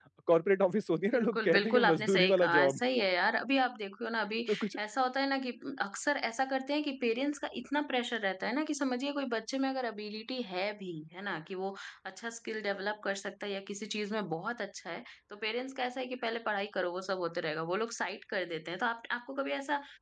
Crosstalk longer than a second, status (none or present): present